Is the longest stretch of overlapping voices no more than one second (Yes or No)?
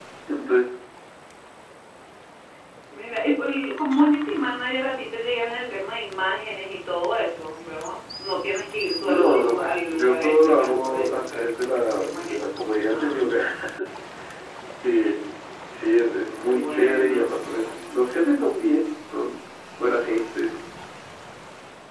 No